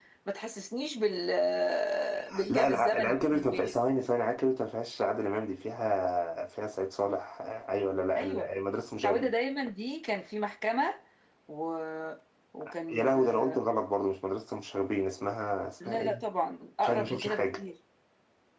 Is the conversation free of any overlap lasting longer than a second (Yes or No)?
No